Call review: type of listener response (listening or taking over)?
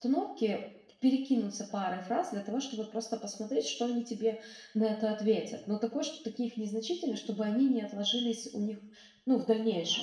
listening